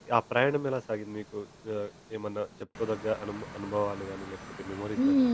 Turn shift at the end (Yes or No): Yes